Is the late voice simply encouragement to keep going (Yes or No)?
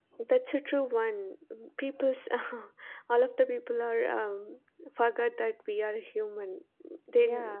Yes